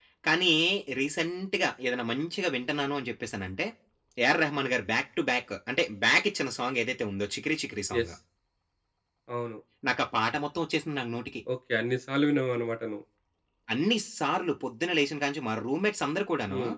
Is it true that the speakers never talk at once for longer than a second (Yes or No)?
Yes